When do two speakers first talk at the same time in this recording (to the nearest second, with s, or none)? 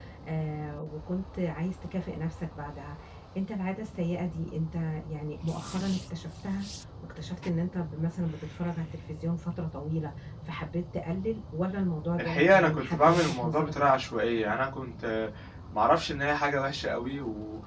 12 s